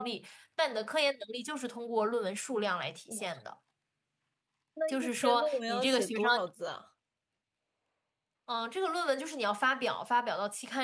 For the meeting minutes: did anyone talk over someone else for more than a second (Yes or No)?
Yes